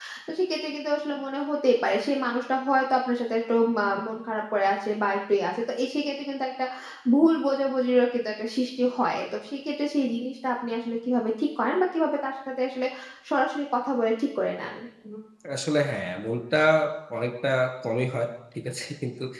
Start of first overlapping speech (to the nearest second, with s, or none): none